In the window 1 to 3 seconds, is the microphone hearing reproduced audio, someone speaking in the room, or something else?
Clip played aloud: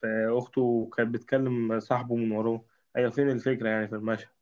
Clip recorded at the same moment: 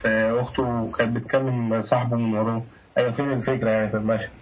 echo only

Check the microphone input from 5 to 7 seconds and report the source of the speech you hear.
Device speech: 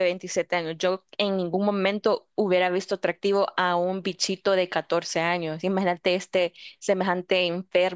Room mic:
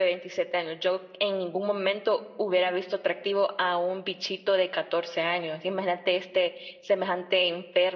echo only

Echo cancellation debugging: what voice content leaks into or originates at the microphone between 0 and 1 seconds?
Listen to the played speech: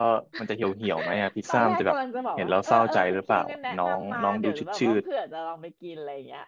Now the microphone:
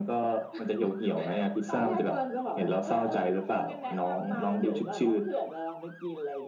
echo only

